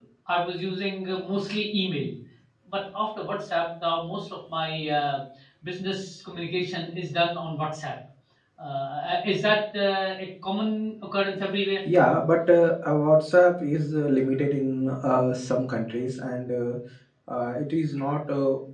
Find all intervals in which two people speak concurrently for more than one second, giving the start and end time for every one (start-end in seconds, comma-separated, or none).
none